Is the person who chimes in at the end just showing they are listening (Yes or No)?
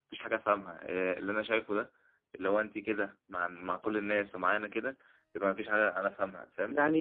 No